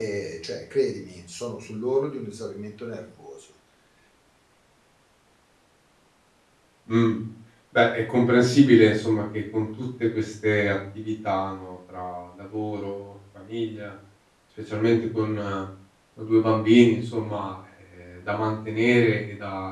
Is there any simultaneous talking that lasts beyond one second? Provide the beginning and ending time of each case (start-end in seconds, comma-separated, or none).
none